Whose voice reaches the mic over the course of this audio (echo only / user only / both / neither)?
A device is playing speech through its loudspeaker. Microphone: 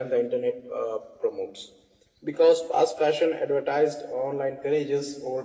echo only